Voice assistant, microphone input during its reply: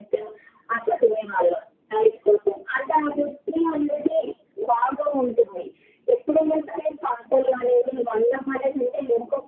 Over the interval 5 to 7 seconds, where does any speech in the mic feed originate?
echo only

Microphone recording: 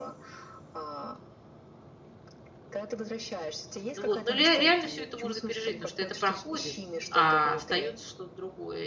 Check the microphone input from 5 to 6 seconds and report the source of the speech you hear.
both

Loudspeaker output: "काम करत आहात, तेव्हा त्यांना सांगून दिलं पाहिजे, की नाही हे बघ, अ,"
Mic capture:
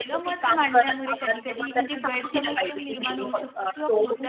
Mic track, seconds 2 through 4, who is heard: both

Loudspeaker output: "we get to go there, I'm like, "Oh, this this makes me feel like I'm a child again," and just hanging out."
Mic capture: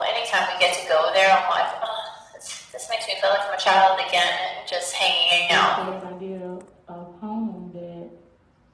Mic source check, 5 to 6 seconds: both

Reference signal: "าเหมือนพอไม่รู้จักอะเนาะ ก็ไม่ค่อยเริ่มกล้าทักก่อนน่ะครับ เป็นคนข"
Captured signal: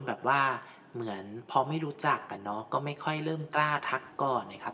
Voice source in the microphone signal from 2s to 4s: echo only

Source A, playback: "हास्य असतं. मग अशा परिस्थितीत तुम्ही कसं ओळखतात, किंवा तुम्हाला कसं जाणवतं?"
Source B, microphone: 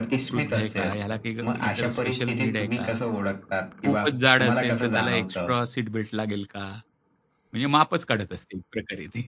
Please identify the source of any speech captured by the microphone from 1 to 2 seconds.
both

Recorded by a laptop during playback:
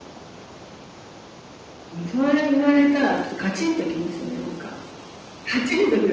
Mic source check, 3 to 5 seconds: echo only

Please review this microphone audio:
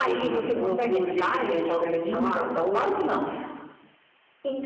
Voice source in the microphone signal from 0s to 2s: echo only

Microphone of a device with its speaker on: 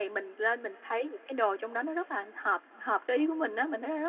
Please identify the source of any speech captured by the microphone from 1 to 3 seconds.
echo only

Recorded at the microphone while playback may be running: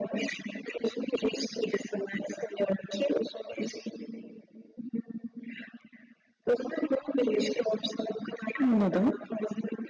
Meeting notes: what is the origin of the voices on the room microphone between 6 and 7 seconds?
echo only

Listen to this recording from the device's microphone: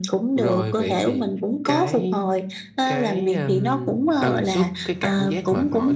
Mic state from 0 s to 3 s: echo only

